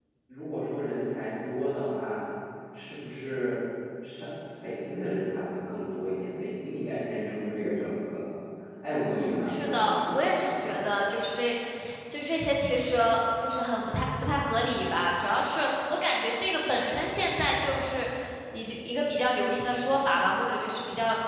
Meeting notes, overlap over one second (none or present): present